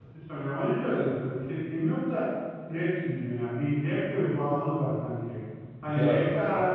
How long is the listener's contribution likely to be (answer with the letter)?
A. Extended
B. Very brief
B